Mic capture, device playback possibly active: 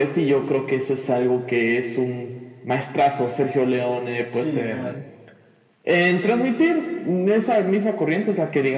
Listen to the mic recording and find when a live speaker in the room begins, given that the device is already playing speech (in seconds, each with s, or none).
4.3 s